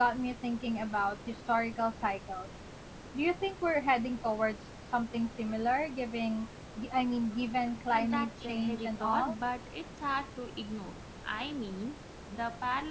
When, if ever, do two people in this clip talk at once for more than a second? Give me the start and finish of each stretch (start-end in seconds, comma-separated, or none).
7.9-9.3